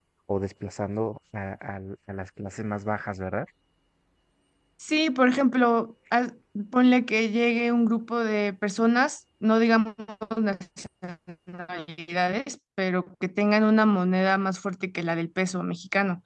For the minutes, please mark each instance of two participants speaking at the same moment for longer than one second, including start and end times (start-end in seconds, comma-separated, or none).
none